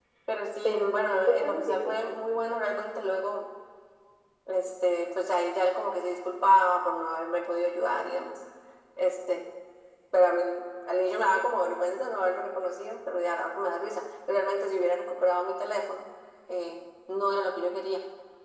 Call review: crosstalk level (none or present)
present